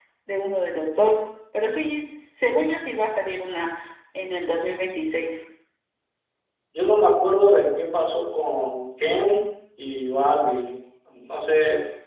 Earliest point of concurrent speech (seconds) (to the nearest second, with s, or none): none